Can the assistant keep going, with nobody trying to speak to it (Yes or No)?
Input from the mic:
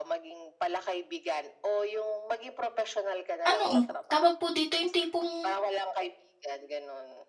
No